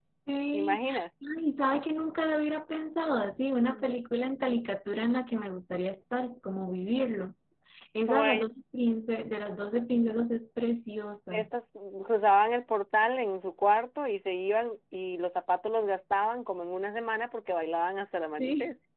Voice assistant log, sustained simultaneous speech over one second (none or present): none